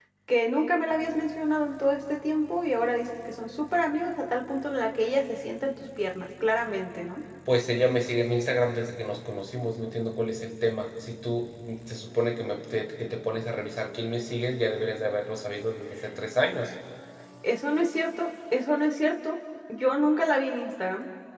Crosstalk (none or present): none